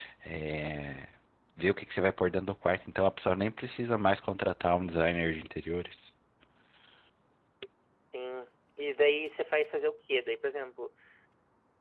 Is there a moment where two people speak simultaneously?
No

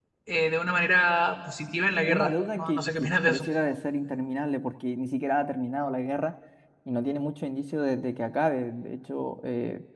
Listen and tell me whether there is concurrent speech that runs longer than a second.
Yes, from 2.1 s

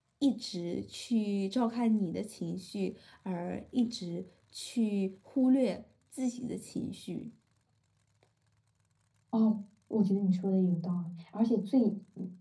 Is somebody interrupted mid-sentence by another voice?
No

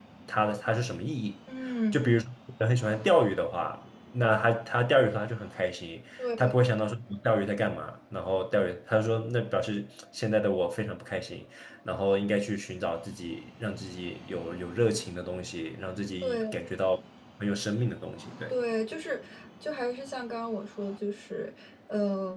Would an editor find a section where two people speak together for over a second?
No

